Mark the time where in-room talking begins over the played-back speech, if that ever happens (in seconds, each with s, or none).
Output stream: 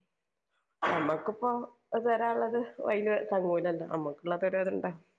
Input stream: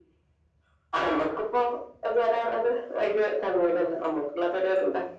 none